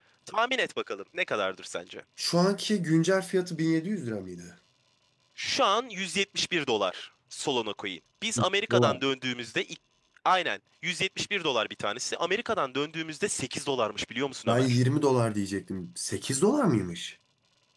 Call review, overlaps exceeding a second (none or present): none